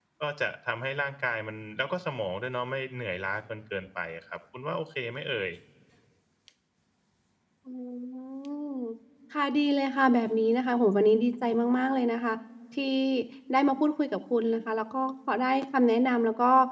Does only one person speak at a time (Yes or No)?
Yes